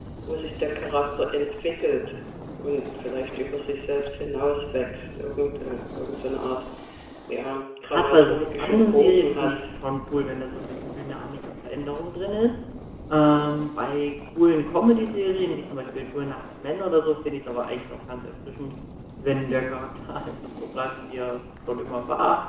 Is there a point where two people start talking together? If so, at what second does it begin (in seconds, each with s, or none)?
7.8 s